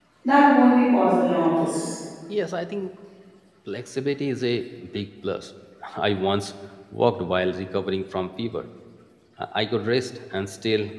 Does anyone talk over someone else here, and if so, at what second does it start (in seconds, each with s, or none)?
none